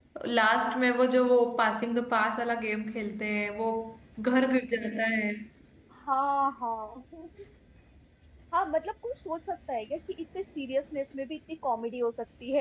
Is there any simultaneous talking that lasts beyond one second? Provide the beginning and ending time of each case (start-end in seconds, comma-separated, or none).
none